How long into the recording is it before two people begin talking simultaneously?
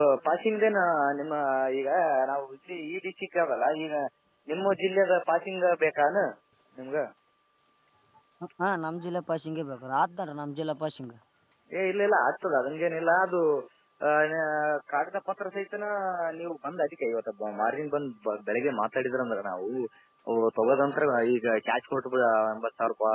none

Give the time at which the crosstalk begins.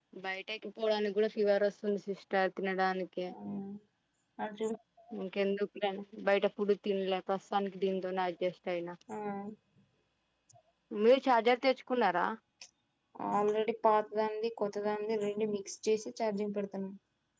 none

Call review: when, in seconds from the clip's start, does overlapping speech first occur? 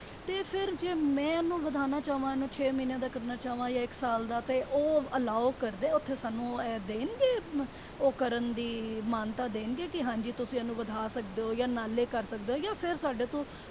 none

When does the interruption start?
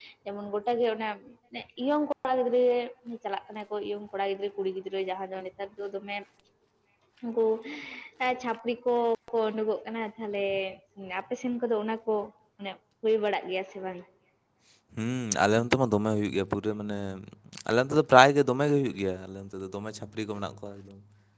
none

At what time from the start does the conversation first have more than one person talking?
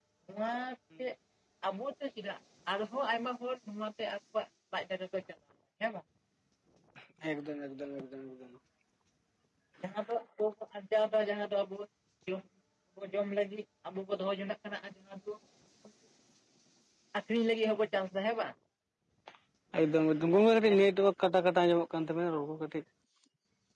none

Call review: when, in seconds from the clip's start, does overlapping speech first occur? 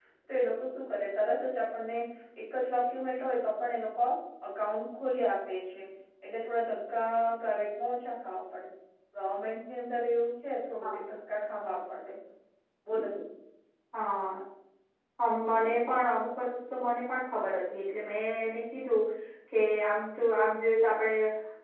none

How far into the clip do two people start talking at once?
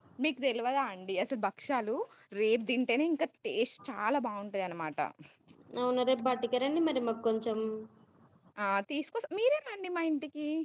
none

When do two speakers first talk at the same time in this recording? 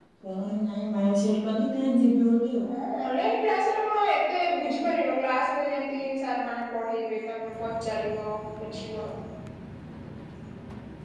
none

